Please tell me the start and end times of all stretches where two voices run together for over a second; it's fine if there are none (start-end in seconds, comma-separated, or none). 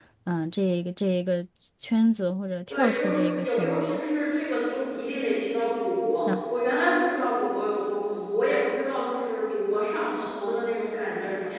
2.7-4.0